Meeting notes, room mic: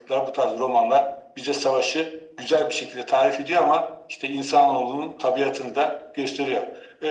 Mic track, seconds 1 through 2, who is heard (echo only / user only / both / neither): echo only